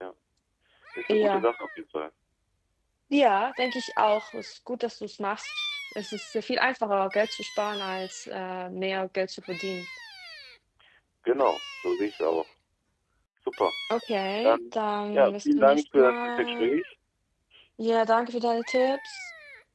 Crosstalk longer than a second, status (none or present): present